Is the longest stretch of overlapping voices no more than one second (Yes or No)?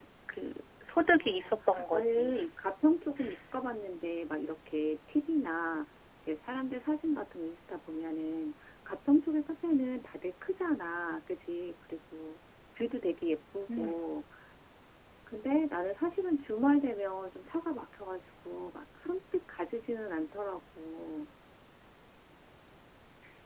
No